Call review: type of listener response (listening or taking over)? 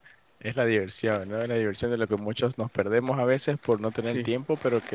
listening